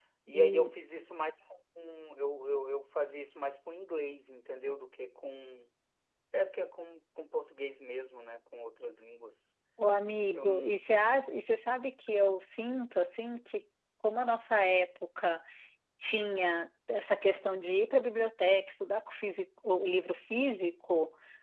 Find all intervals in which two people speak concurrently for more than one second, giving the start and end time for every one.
none

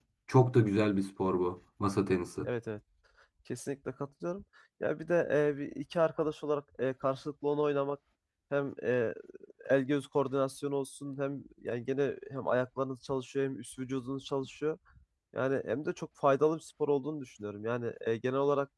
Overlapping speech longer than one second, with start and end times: none

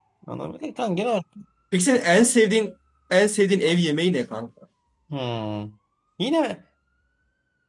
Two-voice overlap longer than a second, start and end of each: none

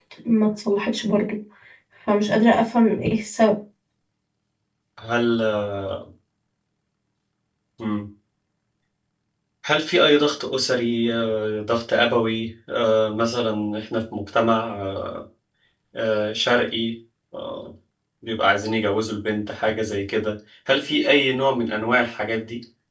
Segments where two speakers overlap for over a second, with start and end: none

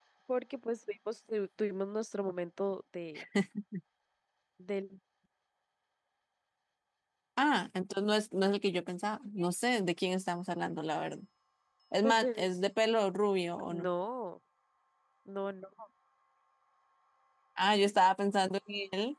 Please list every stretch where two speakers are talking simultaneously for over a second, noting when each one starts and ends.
none

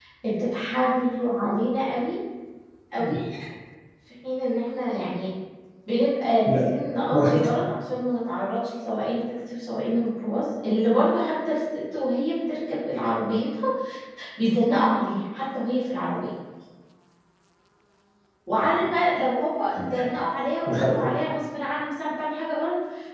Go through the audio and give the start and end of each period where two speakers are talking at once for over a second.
none

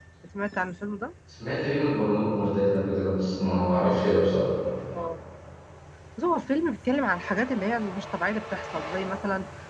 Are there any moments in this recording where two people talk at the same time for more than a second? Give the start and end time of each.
none

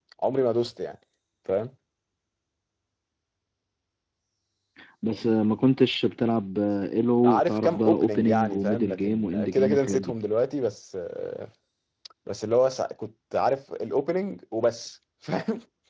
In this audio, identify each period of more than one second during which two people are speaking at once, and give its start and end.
7.2-10.1

